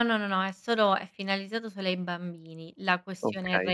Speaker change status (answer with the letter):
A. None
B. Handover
A